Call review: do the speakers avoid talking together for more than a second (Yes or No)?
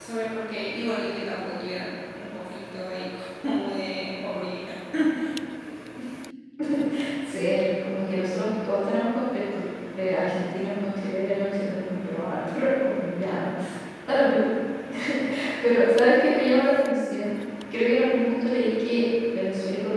Yes